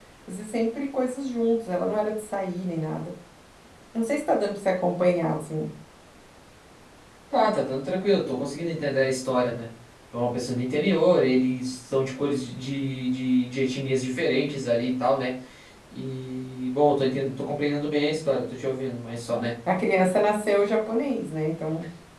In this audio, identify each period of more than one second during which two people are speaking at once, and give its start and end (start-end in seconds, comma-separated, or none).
none